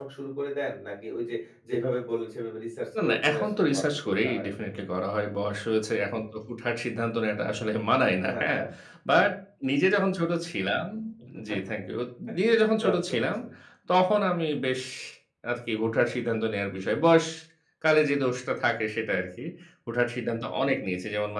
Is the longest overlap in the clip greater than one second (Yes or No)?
Yes